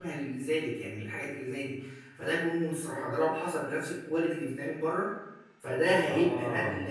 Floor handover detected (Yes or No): No